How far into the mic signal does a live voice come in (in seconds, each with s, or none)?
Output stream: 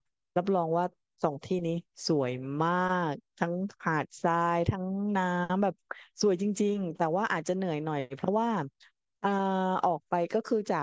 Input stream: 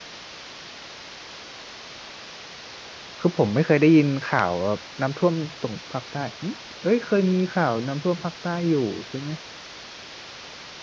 3.2 s